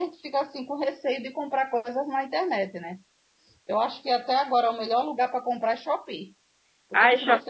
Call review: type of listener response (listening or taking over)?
listening